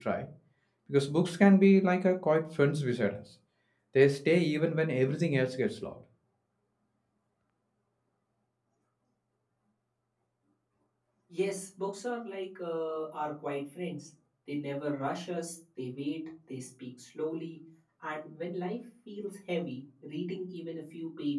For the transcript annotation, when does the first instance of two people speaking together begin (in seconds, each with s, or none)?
none